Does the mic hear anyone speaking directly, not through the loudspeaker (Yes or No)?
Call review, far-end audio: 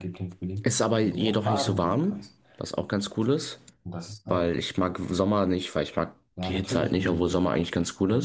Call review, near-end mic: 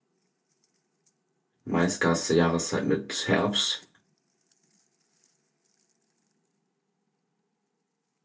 Yes